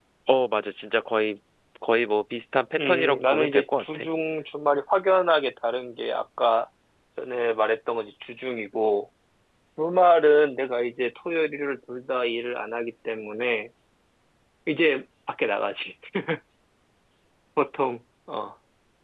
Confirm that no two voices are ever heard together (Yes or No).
No